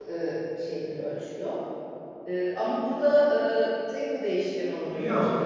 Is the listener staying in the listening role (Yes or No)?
No